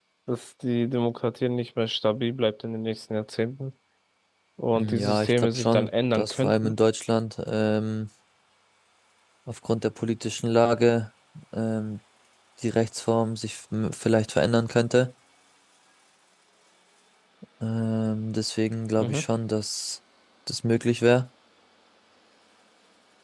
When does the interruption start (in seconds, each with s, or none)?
4.8 s